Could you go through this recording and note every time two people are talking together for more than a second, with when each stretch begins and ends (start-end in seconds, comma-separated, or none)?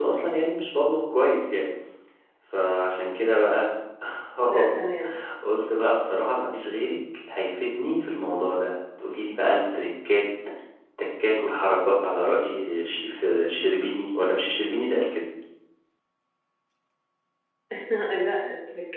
none